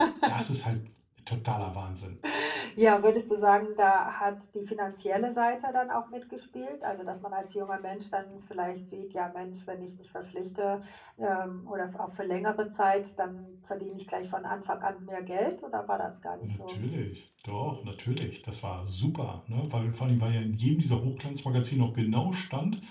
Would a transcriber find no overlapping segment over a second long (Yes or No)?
Yes